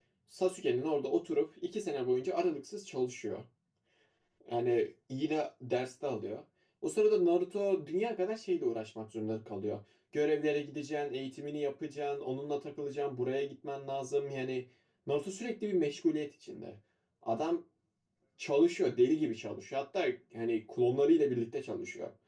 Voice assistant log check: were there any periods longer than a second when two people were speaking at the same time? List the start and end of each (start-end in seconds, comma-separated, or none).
none